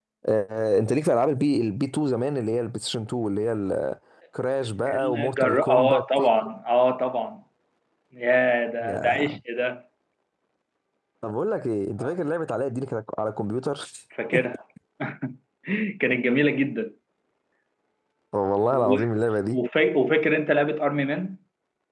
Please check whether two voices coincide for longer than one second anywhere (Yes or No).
Yes